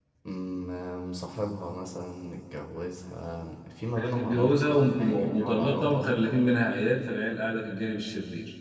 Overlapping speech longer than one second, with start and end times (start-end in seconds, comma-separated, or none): 4.0-6.1